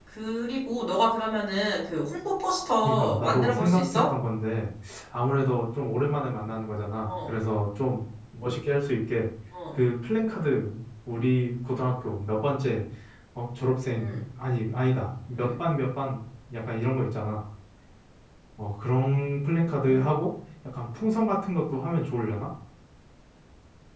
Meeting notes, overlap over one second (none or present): present